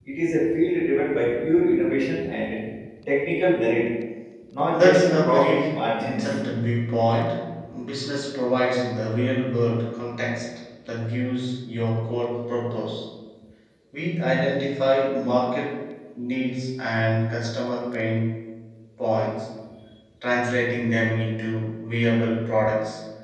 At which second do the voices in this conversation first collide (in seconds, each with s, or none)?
4.7 s